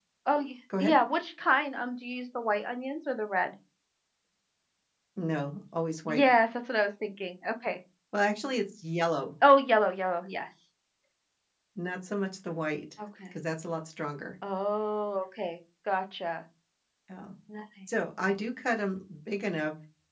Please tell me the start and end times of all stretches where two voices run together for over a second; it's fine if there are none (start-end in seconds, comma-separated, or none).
none